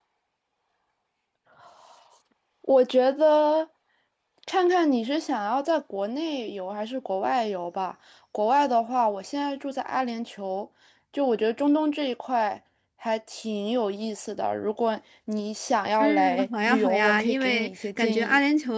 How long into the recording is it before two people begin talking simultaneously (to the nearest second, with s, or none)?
16 s